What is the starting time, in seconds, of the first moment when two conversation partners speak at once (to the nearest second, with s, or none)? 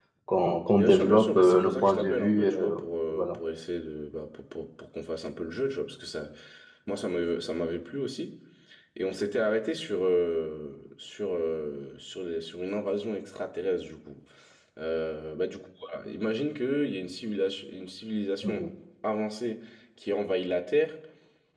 1 s